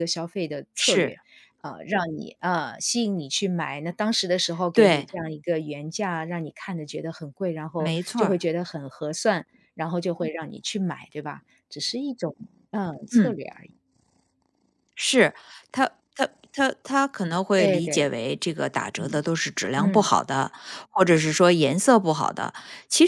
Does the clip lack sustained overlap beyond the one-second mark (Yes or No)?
Yes